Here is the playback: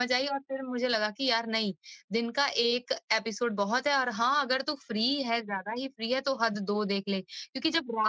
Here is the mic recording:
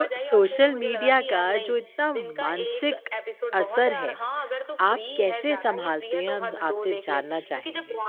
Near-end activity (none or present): present